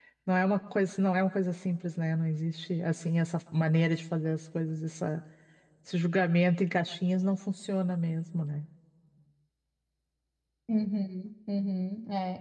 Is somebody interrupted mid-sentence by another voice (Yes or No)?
No